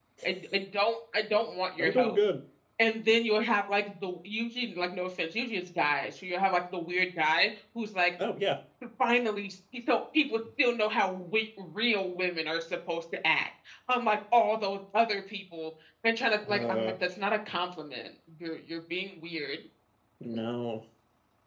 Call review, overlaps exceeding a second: none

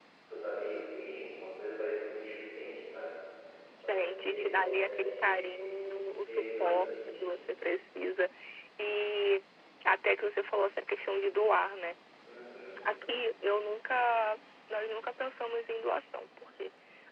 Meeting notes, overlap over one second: present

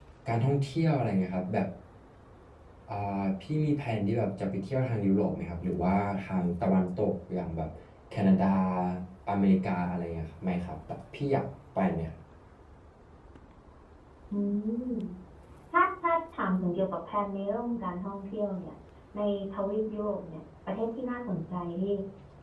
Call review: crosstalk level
none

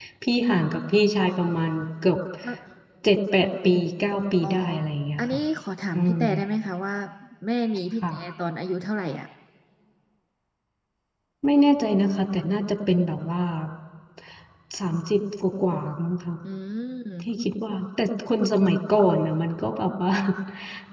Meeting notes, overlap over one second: none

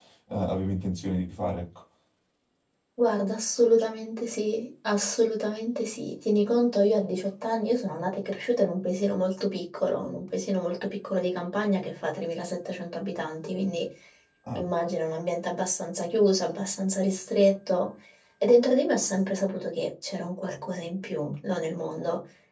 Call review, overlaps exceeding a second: none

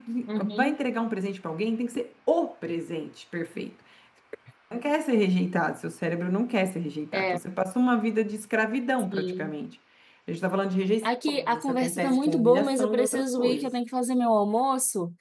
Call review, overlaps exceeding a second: present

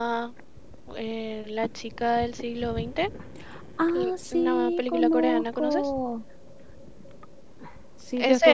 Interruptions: present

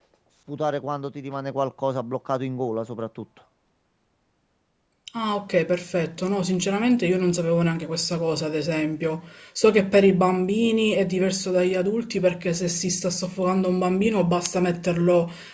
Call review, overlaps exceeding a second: none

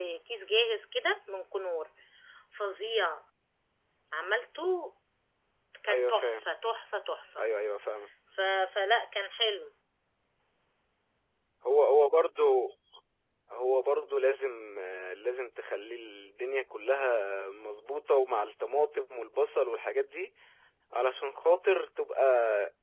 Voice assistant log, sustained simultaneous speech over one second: none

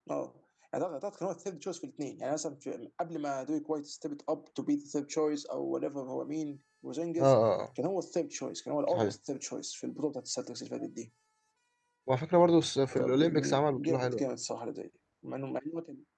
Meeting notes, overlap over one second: present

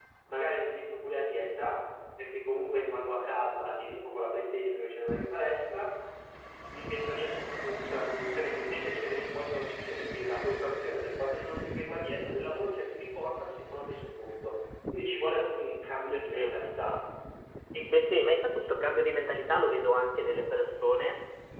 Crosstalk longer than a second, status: none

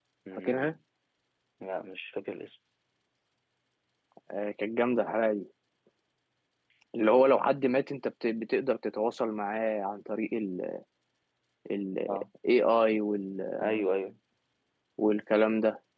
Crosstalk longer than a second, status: none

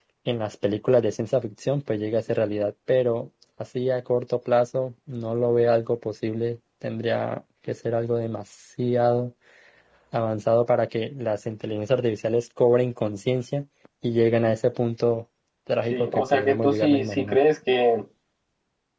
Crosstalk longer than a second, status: present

